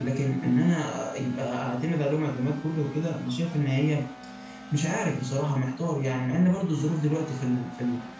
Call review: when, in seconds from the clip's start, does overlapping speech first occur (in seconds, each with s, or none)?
none